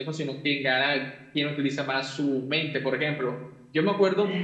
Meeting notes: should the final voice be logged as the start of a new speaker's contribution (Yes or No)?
No